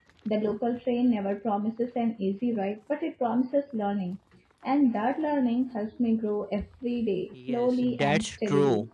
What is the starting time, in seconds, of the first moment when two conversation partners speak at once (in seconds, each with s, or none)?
7.3 s